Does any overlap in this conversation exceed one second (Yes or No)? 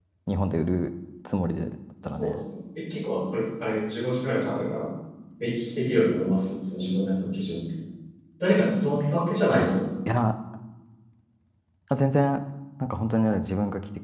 No